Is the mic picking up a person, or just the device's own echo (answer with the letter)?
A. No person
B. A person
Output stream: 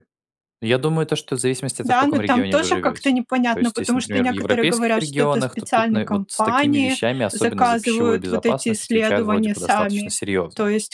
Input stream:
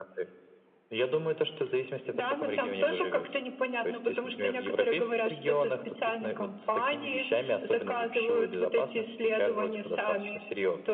A